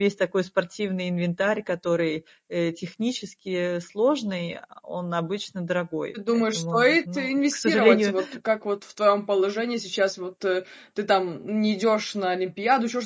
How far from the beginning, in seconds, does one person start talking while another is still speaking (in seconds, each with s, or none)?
6.2 s